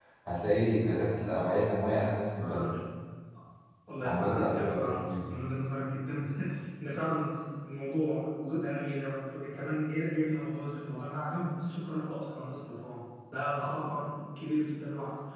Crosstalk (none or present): present